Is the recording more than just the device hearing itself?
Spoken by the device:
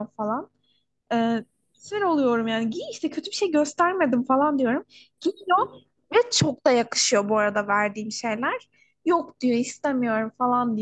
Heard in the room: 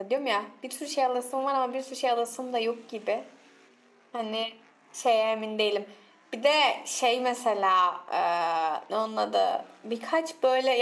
Yes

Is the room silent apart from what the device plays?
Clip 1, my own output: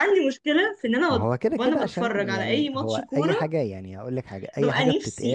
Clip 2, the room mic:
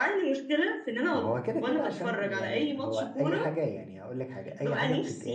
Yes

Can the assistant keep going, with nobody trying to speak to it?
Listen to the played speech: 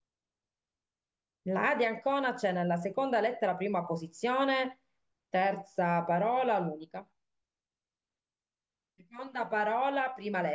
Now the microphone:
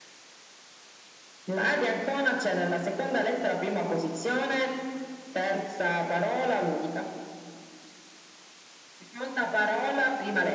Yes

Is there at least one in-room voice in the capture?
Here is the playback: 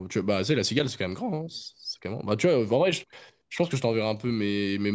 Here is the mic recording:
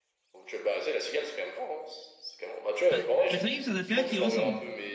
Yes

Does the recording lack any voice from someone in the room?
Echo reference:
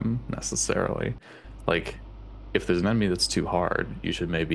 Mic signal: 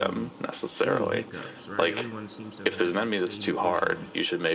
No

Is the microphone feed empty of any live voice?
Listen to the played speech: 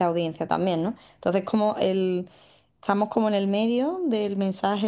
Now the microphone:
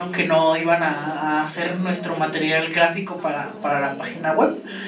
No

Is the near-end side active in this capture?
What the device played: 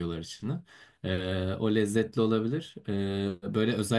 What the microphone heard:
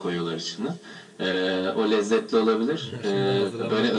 Yes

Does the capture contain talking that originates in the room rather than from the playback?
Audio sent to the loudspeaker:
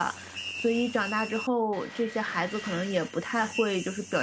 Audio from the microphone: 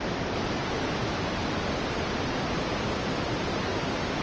No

